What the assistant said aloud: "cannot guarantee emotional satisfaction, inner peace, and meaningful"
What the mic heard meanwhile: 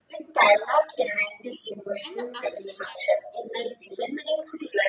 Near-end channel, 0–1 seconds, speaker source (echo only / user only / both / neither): echo only